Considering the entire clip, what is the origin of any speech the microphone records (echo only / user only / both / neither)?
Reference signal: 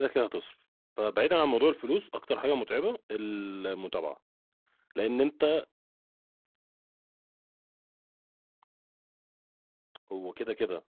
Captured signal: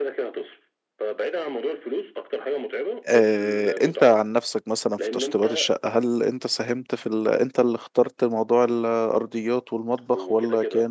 both